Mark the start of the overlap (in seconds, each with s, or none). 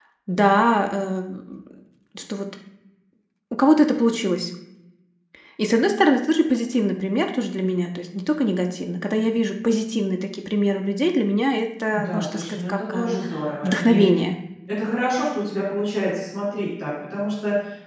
11.9 s